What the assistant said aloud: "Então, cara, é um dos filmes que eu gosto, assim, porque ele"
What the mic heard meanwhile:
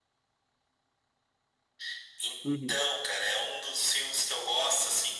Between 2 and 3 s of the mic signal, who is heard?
both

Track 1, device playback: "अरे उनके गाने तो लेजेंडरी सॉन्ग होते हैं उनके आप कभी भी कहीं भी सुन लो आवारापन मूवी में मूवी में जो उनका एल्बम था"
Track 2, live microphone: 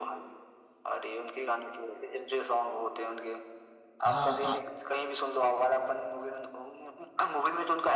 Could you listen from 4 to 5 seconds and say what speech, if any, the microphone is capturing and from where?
both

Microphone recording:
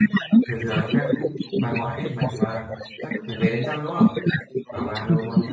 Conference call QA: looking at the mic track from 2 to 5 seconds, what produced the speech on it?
both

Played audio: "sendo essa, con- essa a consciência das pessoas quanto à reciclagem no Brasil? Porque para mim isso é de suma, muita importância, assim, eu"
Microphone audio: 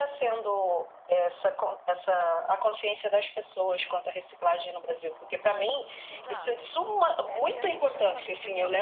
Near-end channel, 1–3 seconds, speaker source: echo only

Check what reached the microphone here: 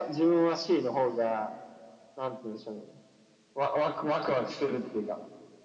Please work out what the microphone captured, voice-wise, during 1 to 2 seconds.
echo only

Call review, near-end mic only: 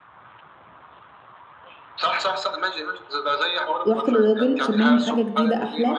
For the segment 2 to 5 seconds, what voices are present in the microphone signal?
both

